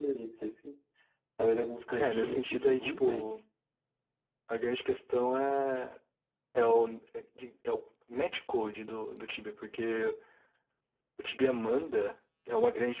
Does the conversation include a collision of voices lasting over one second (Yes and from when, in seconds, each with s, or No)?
Yes, from 2.0 s